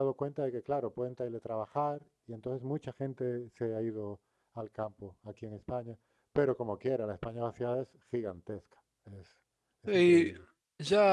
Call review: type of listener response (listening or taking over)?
taking over